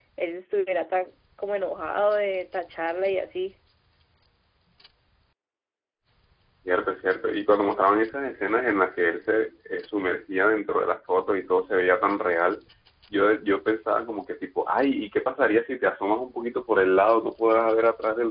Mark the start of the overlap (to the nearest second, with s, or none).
none